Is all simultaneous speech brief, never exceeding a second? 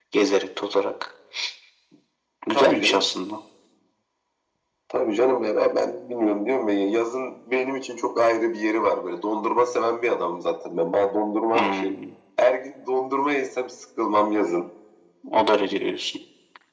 Yes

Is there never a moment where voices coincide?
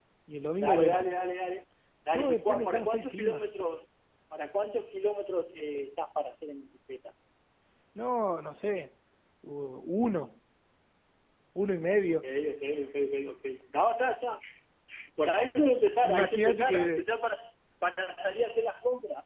No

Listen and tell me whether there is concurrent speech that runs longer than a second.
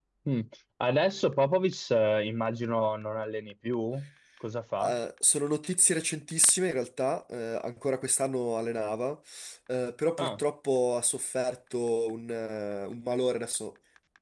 No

